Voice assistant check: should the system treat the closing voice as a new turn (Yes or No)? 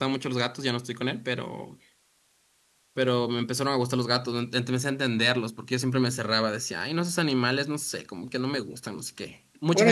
Yes